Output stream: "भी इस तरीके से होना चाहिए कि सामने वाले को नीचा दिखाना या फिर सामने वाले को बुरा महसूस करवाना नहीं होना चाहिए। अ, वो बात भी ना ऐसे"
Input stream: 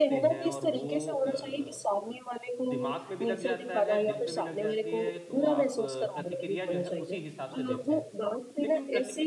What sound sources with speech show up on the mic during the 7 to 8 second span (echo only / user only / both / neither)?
both